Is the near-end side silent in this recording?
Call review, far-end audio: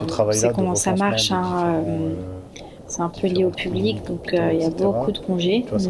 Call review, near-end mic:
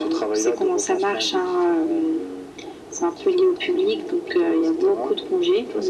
Yes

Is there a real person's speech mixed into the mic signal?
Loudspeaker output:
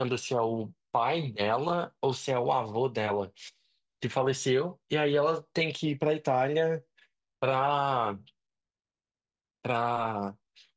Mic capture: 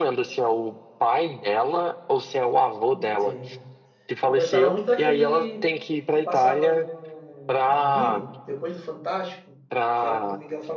Yes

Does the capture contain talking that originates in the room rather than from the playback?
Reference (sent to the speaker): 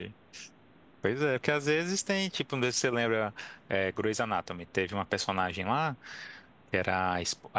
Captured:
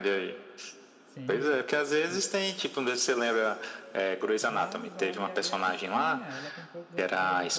Yes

